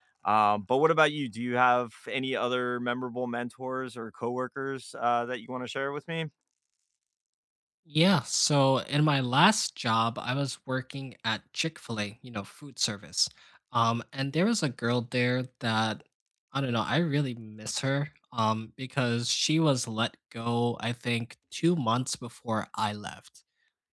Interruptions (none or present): none